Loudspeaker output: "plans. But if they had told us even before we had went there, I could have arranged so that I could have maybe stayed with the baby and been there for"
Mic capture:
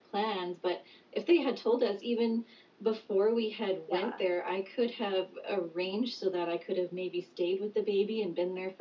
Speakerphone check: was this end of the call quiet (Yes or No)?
No